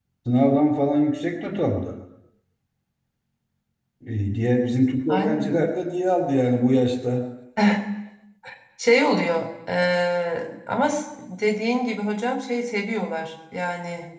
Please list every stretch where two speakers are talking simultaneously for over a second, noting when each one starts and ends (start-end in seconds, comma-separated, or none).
none